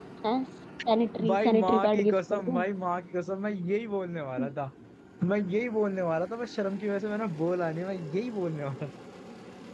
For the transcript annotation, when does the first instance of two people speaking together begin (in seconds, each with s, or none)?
1.3 s